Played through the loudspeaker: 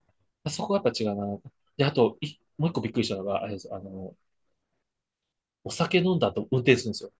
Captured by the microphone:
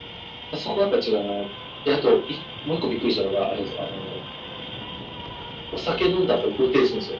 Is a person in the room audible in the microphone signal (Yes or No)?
No